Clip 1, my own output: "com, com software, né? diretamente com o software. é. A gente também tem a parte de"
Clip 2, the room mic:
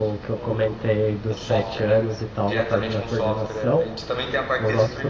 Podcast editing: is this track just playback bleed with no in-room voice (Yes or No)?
No